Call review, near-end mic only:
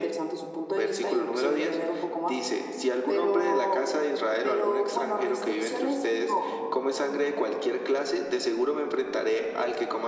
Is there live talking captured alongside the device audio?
No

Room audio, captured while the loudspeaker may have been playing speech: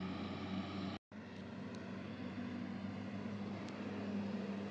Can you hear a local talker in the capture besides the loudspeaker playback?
No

